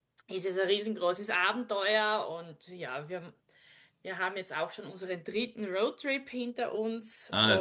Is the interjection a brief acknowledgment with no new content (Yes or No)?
No